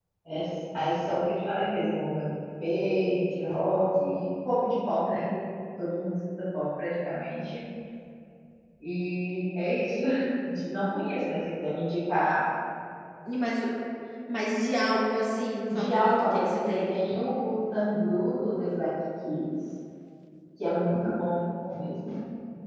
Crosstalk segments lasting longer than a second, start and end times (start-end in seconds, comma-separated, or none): 15.7-17.0